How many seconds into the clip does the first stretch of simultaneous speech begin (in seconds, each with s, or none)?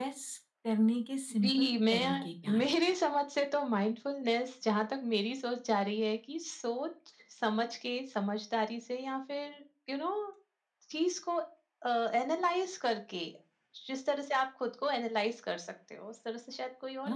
1.4 s